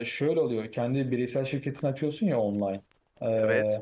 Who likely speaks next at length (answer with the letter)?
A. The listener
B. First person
B